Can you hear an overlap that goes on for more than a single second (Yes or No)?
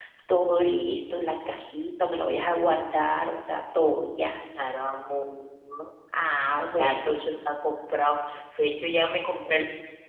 No